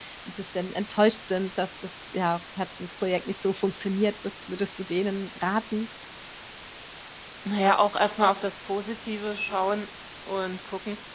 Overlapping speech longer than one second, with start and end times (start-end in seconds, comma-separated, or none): none